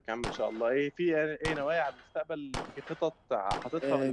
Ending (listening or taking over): taking over